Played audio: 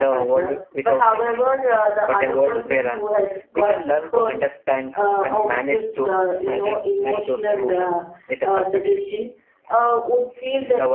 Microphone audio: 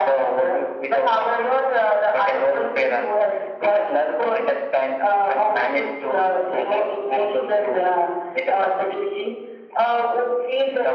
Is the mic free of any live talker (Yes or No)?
Yes